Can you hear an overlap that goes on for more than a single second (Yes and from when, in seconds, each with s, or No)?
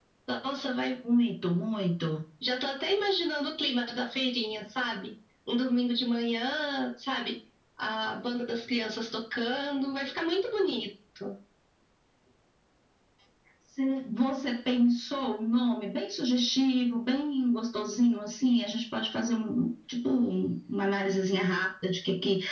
No